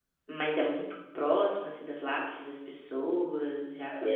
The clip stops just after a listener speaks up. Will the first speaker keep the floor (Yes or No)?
No